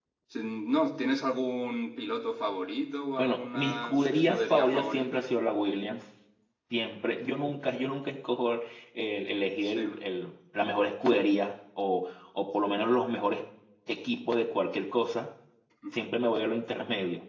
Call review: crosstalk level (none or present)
present